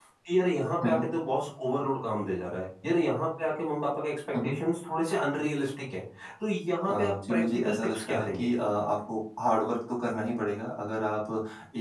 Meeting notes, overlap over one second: present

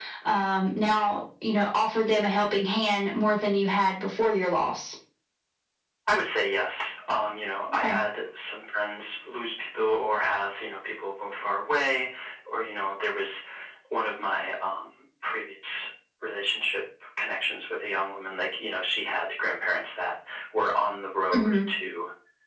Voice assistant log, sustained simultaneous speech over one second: none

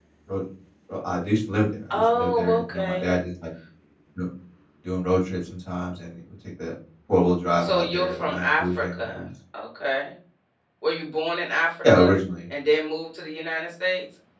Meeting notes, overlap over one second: present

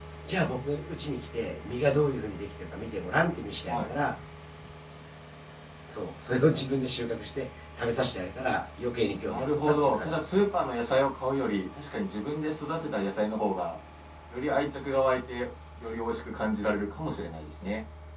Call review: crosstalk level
present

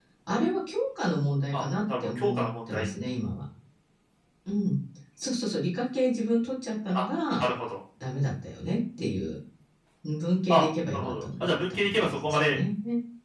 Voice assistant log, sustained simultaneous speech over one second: present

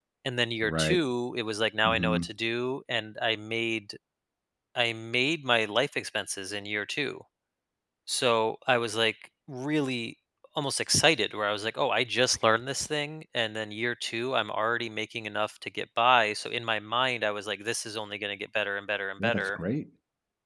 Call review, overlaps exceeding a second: none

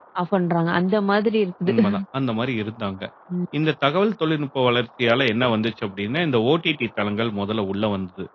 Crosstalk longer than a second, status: none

